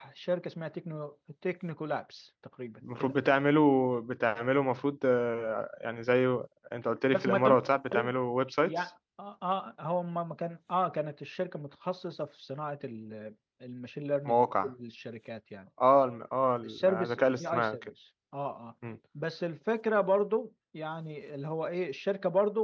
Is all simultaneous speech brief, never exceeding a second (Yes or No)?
No